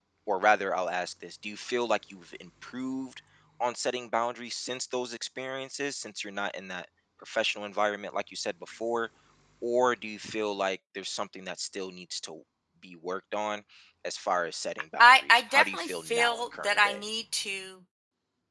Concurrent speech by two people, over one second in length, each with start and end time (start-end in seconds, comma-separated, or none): 15.0-17.0